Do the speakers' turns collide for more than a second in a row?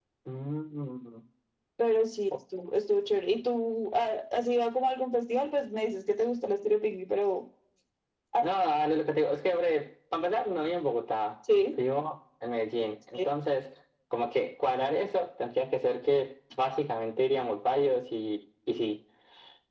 No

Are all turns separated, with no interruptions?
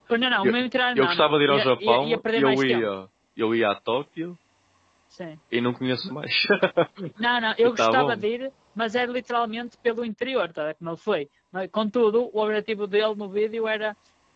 No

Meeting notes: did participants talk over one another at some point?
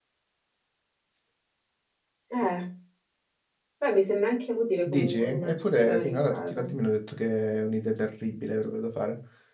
Yes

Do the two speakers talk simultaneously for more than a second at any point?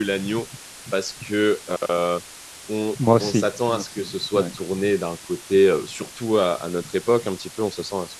Yes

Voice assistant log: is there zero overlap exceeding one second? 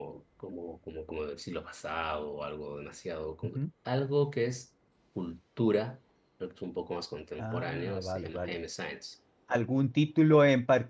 No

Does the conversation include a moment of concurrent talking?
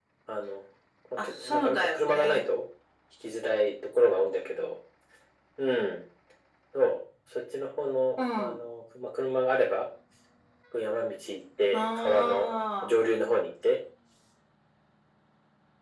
Yes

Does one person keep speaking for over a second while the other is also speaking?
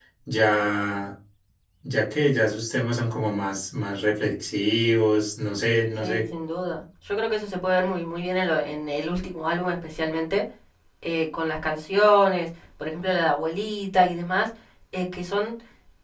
No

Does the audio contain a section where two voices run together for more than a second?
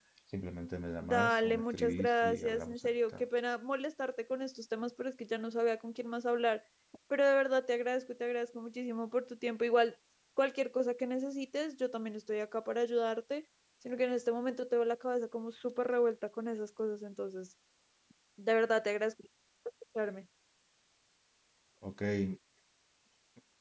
Yes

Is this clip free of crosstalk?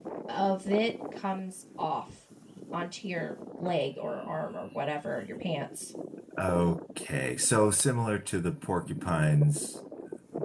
Yes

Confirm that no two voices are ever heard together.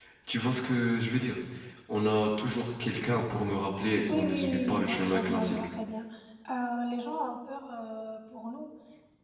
No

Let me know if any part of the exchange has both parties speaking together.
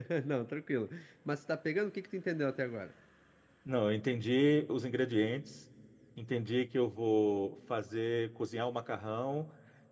No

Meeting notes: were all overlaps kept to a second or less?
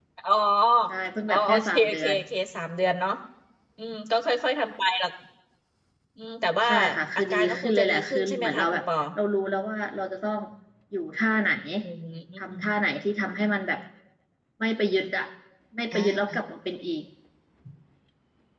No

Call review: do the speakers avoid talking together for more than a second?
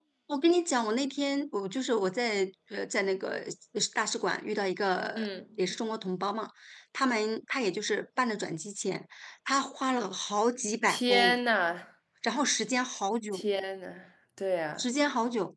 Yes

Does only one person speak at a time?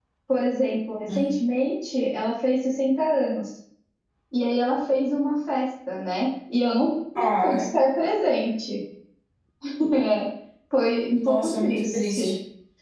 No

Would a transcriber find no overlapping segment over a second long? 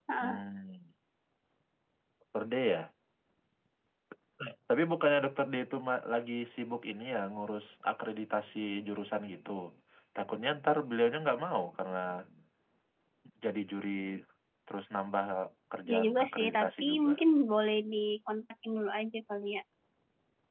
No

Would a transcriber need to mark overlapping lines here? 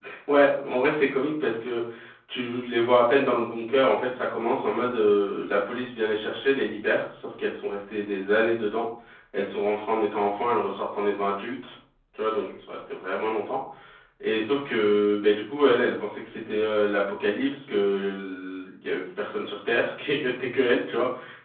No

